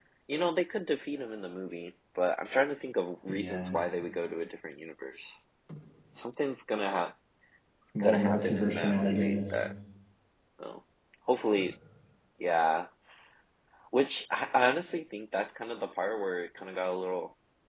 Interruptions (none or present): present